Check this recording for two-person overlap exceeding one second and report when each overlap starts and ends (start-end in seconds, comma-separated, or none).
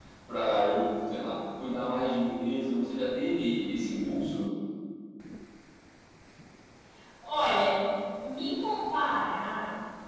none